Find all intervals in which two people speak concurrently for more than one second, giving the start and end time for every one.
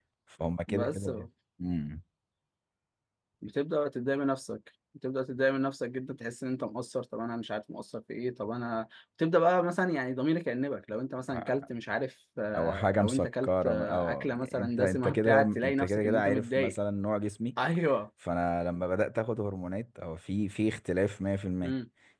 12.6-16.8

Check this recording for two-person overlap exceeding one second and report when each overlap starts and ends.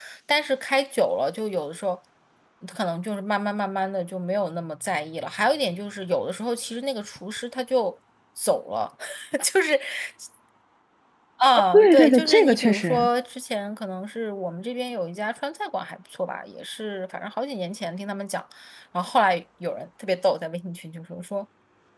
11.7-13.1

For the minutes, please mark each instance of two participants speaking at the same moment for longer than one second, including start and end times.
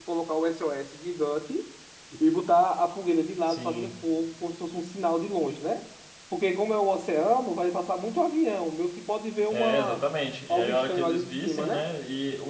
10.5-11.8

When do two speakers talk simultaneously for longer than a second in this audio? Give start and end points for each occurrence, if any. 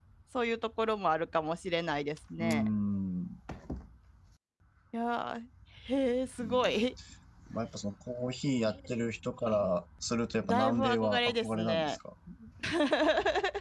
10.4-12.0

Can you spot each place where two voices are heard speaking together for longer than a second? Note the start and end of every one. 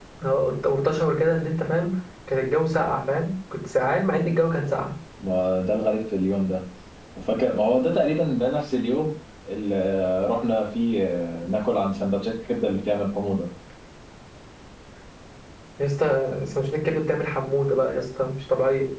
none

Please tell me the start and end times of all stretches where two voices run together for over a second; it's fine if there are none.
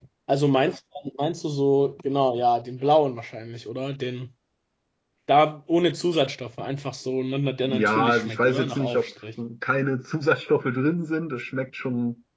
7.7-9.1

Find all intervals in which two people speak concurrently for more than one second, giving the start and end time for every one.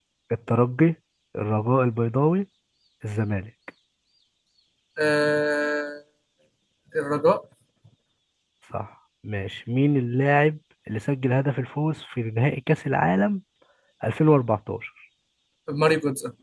none

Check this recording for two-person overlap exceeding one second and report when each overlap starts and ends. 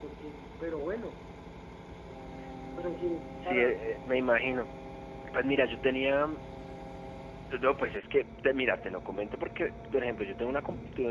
none

